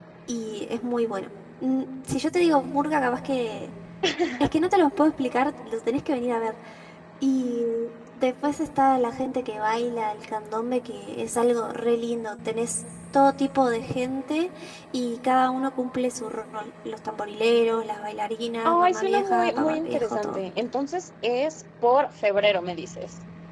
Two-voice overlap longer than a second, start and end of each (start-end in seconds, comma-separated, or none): 18.6-20.4